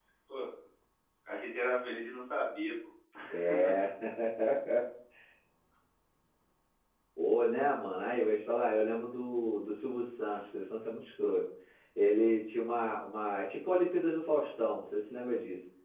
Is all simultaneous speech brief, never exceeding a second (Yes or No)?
Yes